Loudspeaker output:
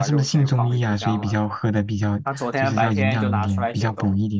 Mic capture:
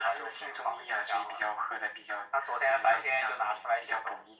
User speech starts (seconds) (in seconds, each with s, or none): none